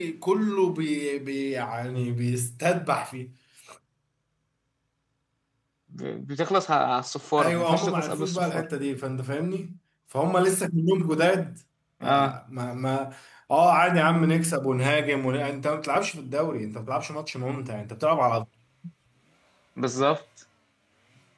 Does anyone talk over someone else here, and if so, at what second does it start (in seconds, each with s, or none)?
7.4 s